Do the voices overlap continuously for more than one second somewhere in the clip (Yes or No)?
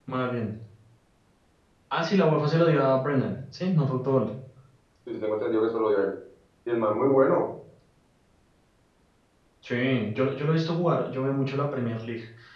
No